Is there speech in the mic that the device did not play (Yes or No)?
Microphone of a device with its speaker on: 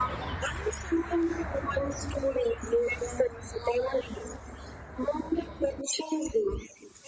No